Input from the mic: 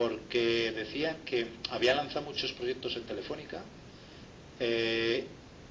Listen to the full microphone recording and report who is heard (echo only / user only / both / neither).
echo only